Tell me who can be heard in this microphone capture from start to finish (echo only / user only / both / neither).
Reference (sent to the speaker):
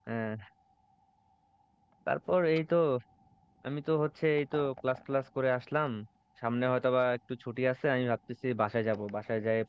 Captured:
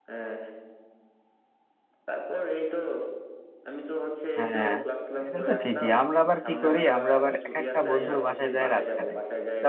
both